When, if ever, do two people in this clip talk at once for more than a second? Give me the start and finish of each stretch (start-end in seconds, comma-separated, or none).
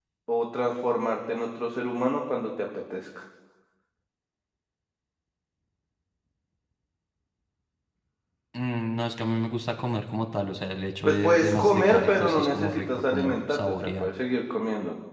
11.1-14.1